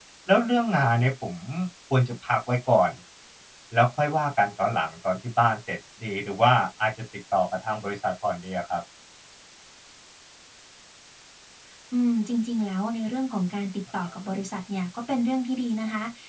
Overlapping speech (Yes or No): No